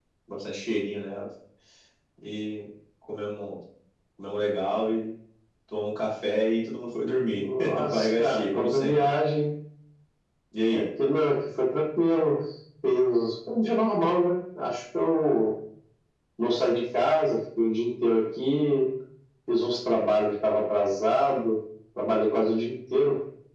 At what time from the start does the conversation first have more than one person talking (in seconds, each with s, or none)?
7.3 s